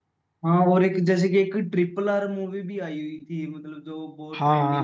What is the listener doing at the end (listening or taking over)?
taking over